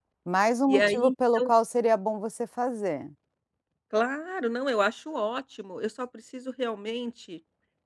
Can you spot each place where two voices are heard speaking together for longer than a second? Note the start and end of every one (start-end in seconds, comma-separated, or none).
none